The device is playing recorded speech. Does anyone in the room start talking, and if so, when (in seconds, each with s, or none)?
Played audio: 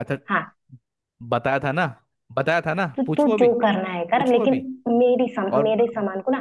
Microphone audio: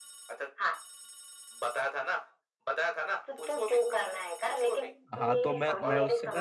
5.2 s